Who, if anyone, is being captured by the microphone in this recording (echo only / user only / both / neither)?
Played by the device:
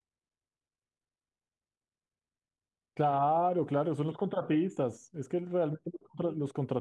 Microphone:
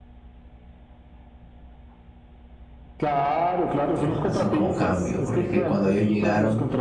both